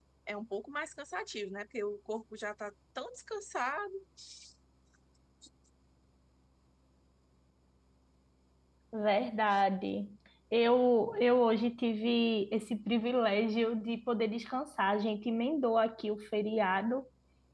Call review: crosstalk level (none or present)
none